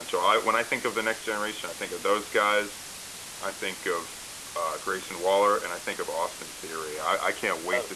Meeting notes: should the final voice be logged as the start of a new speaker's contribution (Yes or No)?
No